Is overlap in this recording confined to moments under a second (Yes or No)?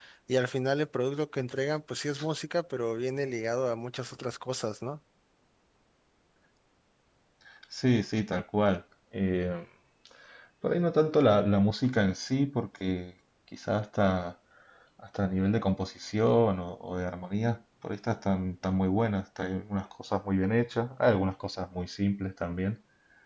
Yes